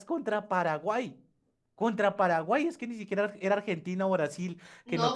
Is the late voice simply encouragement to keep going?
No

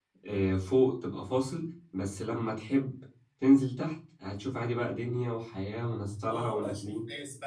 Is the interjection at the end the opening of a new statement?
Yes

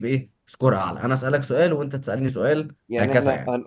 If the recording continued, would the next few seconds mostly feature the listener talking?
Yes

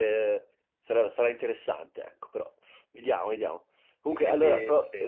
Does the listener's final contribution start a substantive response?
No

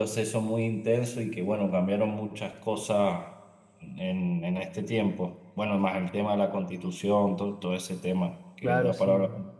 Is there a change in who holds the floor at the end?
Yes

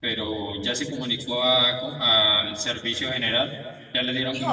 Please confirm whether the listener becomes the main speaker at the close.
Yes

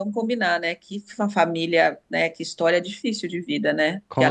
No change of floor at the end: Yes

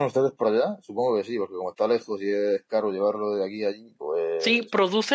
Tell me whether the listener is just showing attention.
No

